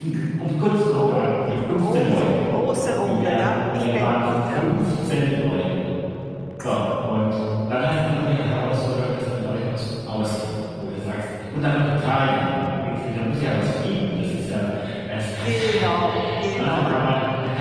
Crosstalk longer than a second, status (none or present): present